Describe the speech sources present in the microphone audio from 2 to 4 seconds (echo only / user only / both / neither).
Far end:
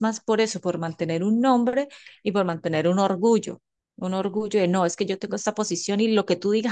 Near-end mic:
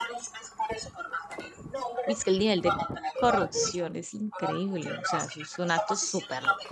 both